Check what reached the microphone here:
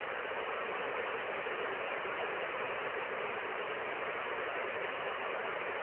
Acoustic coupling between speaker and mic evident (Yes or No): No